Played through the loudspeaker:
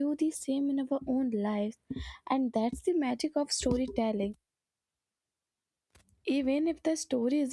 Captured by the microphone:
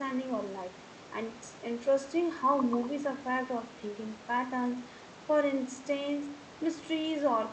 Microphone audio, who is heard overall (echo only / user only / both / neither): user only